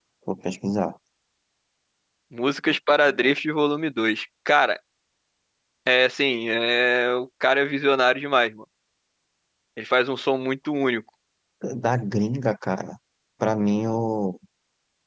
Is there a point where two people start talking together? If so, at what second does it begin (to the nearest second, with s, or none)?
none